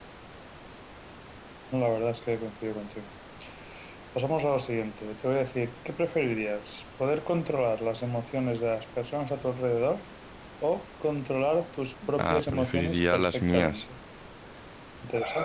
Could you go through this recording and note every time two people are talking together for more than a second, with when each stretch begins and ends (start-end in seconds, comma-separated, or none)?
12.2-13.8